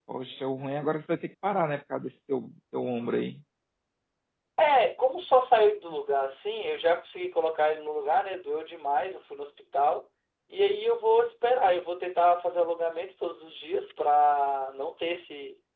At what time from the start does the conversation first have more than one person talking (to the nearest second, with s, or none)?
none